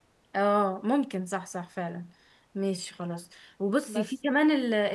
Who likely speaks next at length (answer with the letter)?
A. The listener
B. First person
B